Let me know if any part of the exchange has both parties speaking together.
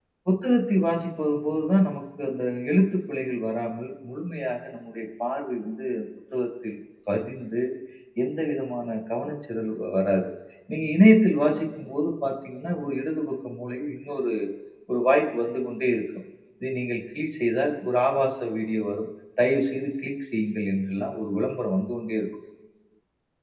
No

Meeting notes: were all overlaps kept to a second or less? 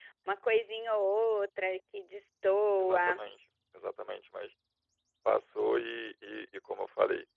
Yes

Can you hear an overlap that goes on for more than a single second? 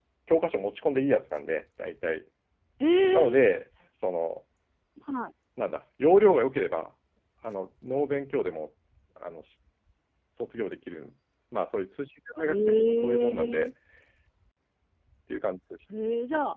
Yes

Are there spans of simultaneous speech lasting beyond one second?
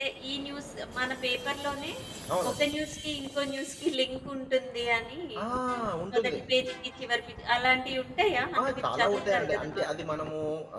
Yes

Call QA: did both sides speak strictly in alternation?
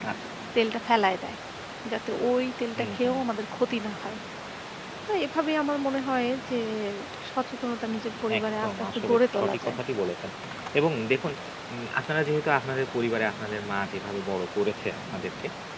No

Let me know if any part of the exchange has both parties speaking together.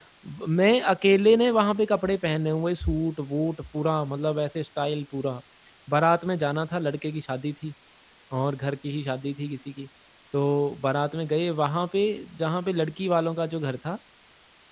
No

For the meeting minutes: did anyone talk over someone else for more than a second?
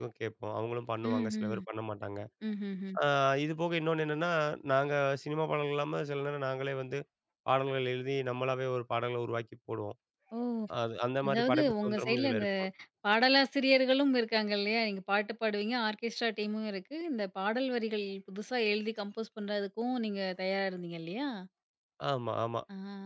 Yes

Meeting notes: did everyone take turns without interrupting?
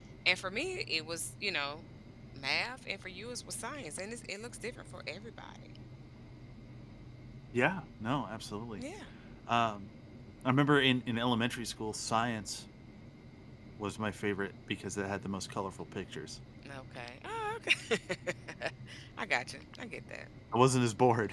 Yes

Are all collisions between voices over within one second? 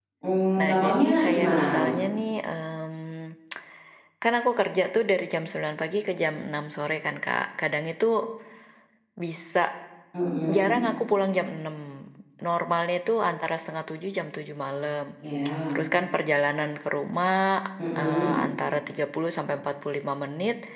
No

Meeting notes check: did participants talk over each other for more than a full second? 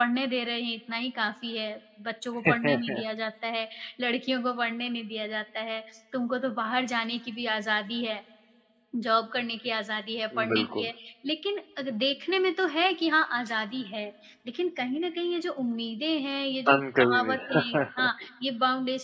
Yes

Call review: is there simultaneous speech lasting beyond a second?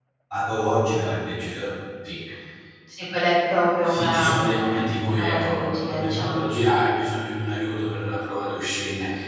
Yes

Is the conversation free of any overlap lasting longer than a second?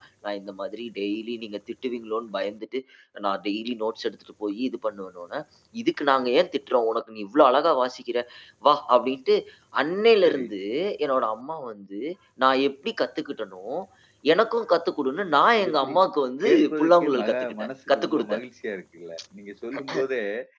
No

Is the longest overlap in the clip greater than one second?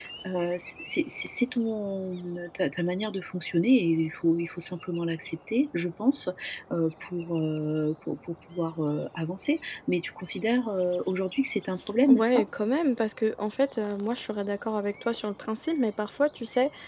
No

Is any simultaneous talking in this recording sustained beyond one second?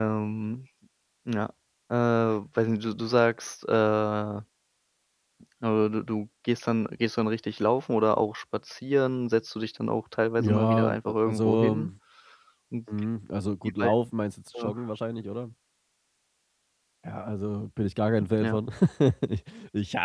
Yes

